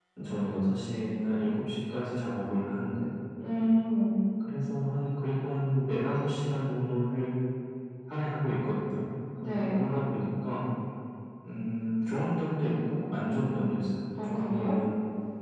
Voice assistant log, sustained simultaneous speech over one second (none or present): none